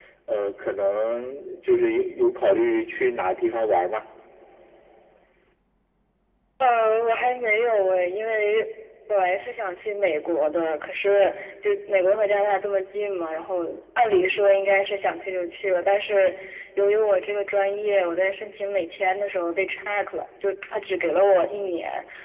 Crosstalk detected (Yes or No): No